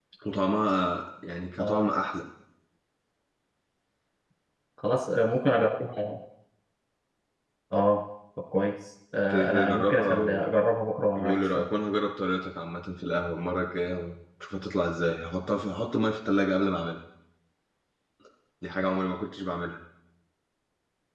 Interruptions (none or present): present